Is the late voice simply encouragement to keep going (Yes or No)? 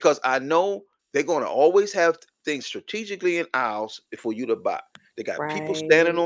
Yes